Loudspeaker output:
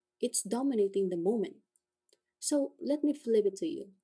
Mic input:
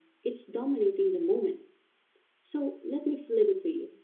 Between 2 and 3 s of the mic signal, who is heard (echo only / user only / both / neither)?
echo only